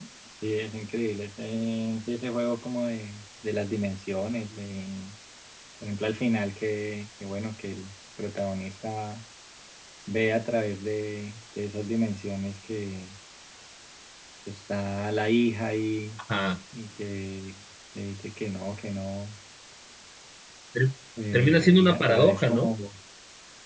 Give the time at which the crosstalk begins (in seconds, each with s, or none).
21.3 s